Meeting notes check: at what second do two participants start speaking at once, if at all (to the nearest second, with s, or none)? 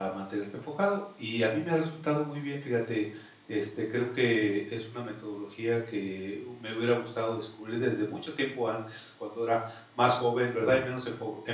none